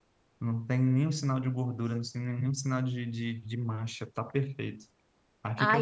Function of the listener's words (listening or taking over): taking over